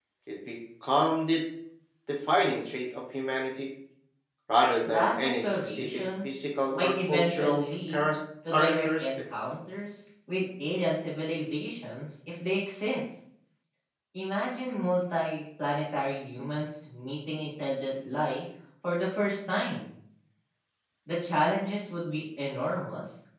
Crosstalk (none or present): present